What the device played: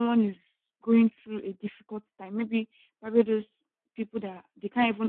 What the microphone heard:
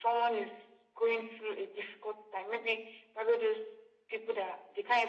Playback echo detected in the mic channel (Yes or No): Yes